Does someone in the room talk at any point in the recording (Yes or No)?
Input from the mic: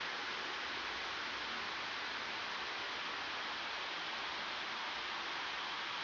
No